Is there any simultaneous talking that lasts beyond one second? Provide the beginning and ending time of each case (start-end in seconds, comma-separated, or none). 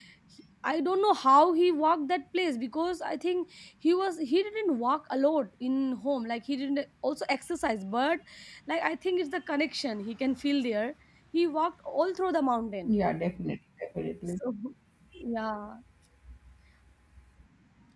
none